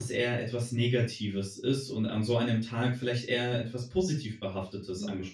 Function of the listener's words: taking over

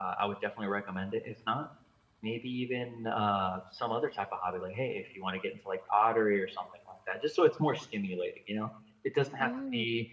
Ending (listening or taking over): listening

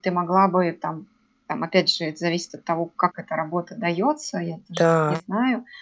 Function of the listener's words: listening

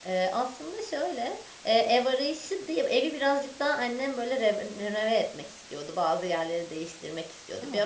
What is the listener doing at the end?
listening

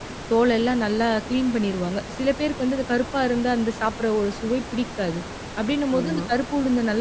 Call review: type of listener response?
listening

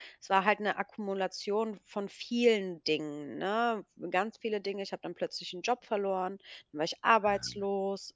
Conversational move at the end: listening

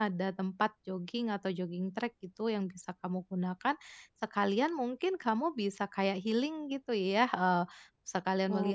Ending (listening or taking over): listening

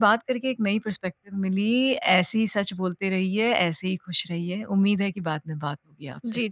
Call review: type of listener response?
taking over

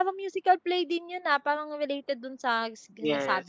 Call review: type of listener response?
taking over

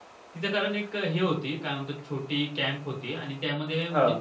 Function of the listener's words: listening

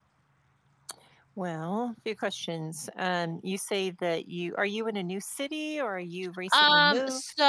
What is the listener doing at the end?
taking over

